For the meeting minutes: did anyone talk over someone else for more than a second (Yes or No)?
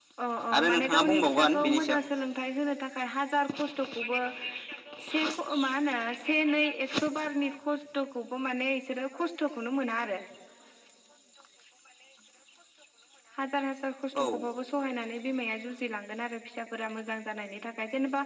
Yes